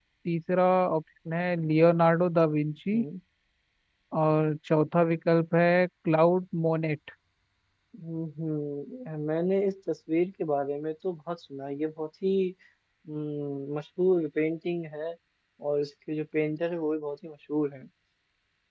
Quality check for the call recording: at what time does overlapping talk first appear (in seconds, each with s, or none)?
none